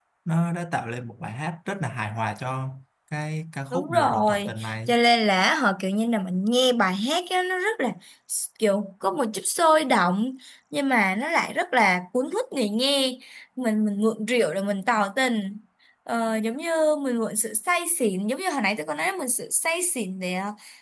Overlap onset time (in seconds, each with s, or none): 3.7 s